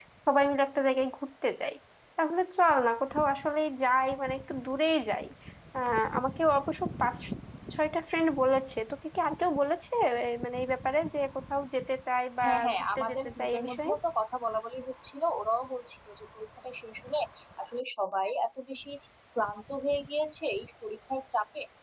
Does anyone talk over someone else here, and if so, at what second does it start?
12 s

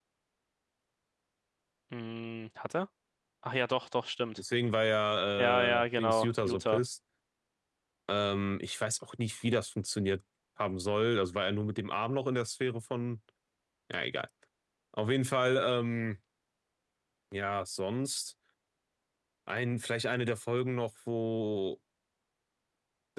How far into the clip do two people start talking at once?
5 s

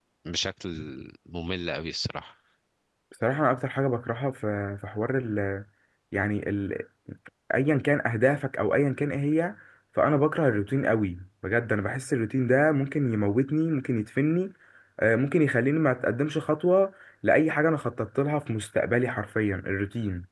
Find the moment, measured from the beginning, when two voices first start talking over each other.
none

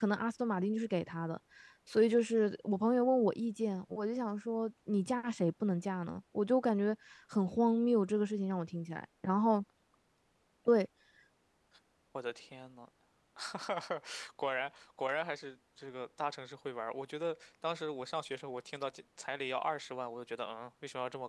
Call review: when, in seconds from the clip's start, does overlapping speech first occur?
none

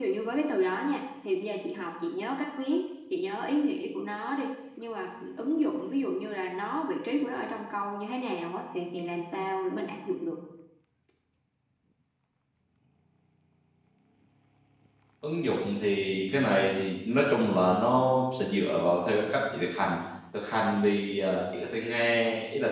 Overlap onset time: none

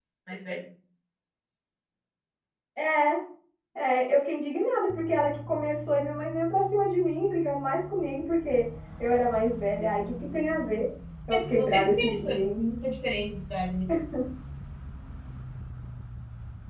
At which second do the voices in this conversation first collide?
11 s

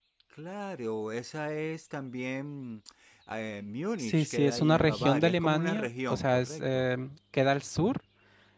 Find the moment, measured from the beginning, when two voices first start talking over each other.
4 s

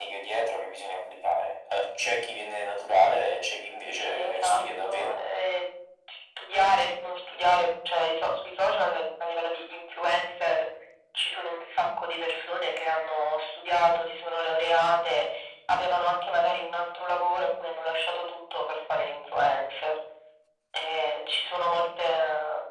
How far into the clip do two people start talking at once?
4 s

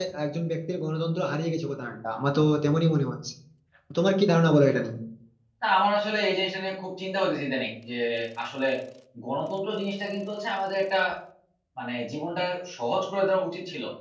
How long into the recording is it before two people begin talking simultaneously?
none

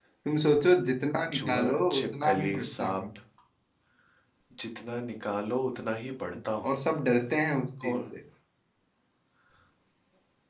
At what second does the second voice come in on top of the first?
1 s

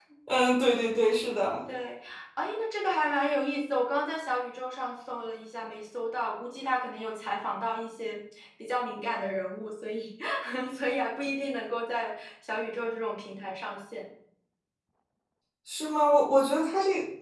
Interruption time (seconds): none

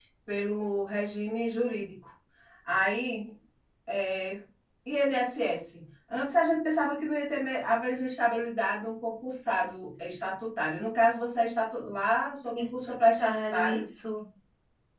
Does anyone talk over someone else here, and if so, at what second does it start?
13 s

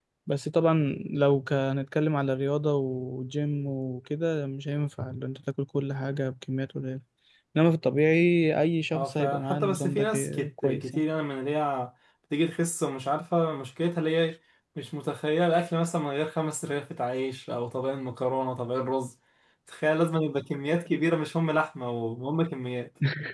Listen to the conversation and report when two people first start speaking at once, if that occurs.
9 s

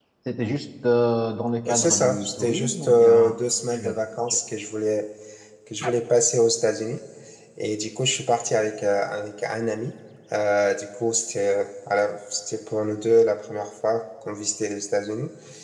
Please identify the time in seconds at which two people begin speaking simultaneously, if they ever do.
2 s

